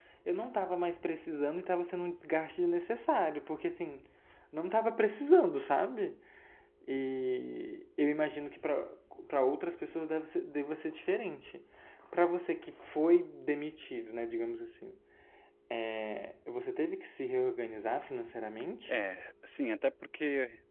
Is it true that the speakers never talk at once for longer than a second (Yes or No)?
Yes